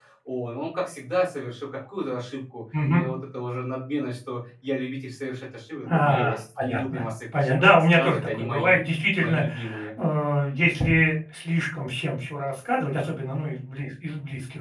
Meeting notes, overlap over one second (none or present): present